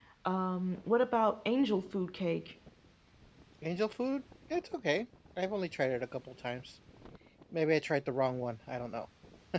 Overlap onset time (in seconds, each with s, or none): none